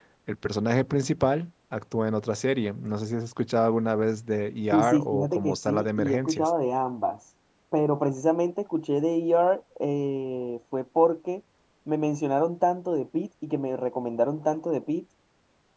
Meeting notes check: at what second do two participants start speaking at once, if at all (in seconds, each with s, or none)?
4.7 s